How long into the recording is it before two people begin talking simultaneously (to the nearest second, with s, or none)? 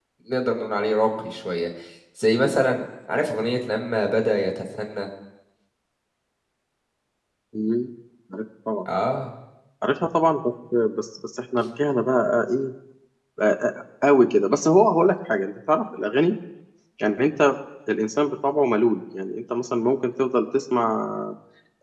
none